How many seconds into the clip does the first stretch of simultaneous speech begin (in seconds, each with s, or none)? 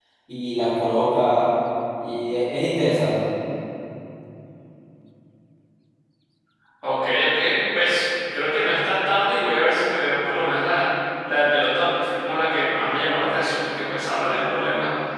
none